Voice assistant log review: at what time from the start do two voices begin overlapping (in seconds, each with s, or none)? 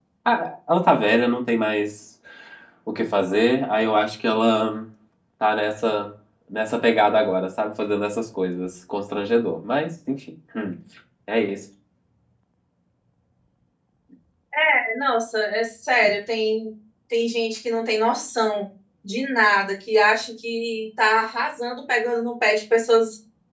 none